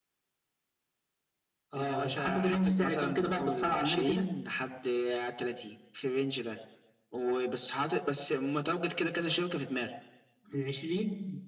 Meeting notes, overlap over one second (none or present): present